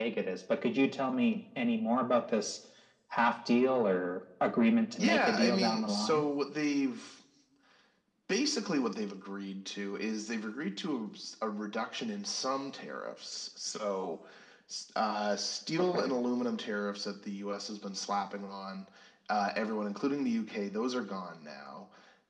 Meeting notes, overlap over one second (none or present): present